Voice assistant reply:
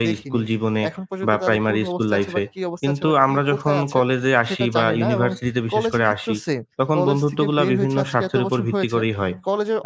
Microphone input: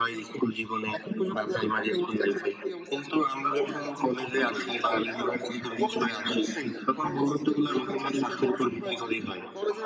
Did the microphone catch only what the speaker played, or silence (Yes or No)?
No